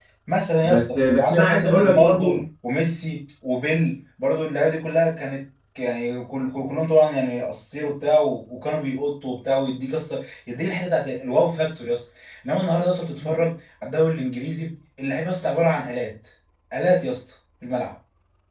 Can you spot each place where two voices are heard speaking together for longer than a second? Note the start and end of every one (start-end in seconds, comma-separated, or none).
0.6-2.2